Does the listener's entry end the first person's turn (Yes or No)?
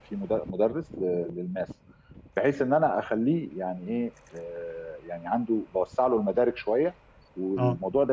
No